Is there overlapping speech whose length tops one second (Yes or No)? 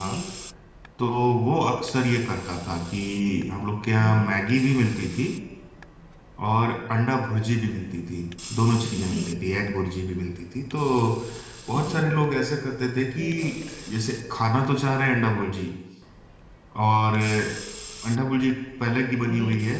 No